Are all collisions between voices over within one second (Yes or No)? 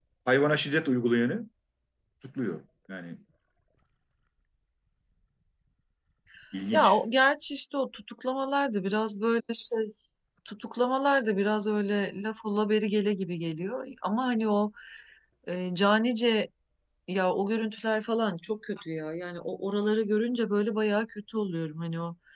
Yes